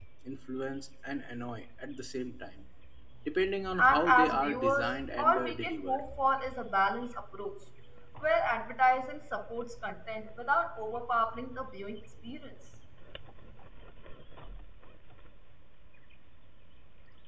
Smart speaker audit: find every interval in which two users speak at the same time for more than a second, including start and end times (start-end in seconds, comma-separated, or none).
3.8-6.0